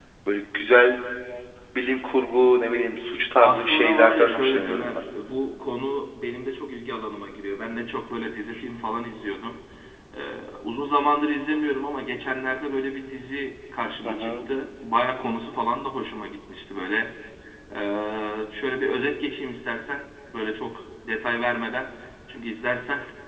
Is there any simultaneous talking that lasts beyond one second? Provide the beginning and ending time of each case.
3.4-5.0

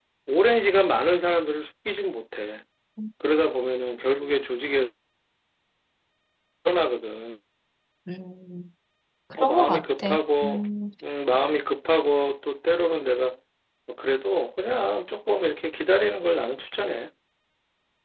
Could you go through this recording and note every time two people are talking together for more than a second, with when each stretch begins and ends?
9.4-10.6

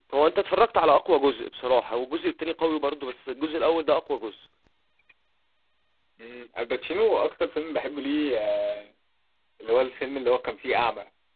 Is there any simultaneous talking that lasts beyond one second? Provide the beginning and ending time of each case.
none

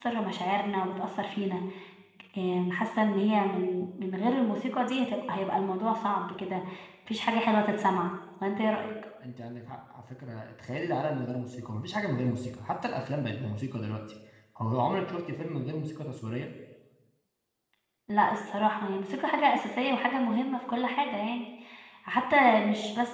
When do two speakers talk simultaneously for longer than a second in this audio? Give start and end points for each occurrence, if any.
none

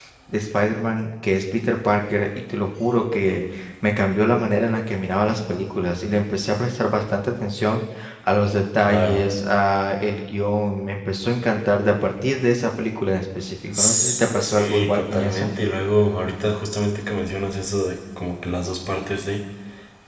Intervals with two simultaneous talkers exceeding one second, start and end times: 13.7-15.5

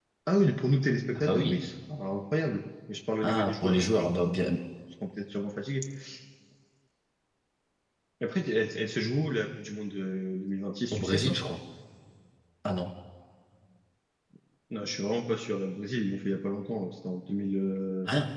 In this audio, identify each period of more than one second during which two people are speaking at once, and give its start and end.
3.2-4.6

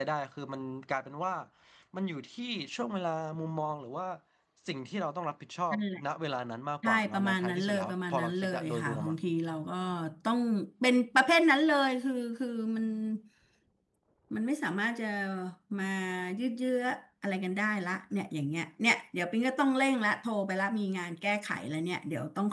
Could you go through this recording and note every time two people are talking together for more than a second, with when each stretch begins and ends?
6.8-9.2

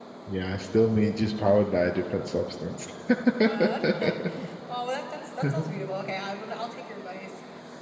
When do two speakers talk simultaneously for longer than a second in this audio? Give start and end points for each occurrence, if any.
none

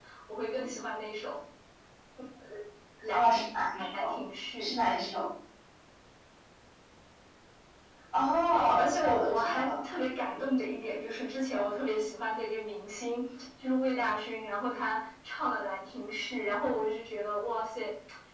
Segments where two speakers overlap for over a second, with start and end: 8.5-9.8

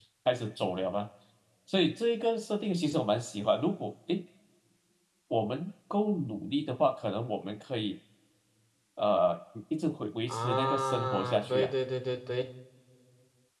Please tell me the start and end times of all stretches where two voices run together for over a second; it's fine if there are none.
10.3-11.7

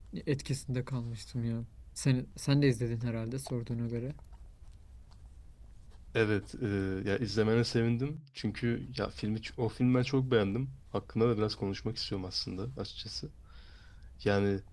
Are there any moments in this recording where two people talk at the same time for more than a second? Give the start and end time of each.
none

